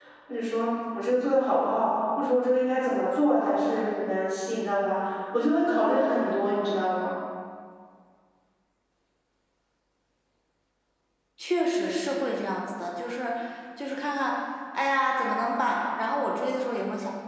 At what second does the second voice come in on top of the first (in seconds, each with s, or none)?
none